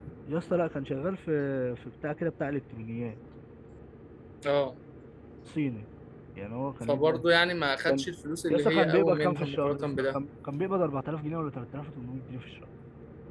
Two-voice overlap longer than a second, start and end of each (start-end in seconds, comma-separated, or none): 8.5-10.2